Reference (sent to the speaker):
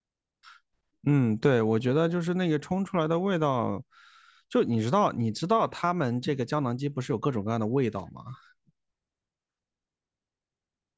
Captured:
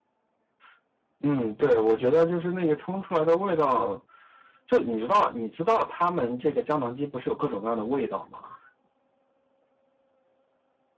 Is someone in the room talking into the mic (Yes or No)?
No